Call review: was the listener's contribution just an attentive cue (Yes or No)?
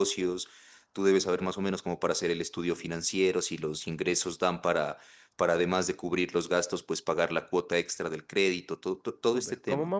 No